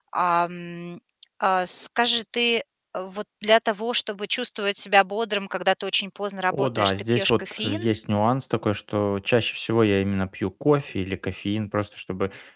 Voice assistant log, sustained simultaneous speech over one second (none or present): present